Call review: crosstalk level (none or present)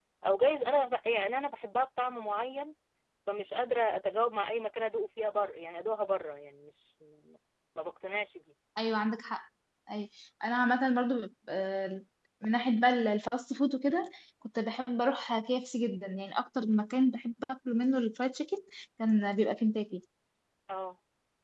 none